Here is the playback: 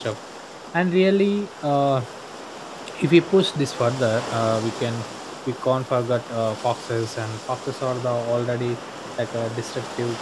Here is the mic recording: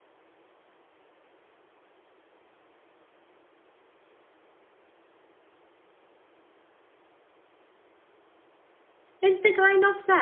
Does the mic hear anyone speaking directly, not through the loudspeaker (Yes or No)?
Yes